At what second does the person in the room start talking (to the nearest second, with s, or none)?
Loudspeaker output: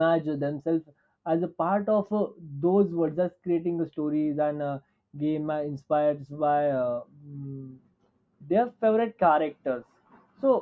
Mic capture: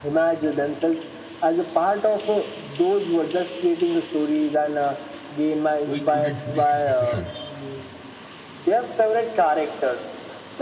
6 s